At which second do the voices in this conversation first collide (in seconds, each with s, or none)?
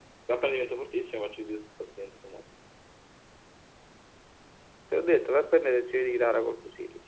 none